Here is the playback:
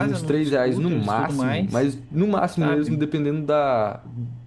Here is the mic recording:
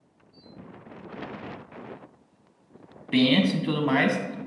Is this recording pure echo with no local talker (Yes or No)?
No